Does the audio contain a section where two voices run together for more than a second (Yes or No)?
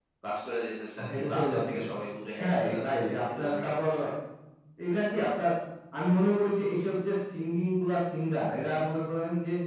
Yes